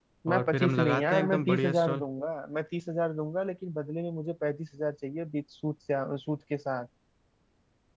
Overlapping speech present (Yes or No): Yes